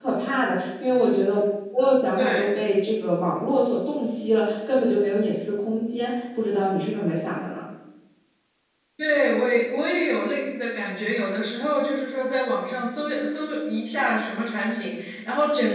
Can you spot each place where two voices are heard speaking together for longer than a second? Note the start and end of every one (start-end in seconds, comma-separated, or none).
none